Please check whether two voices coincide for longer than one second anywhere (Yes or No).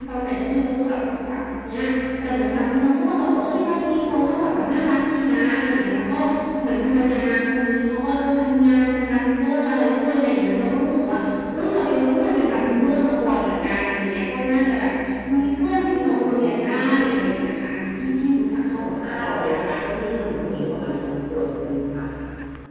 Yes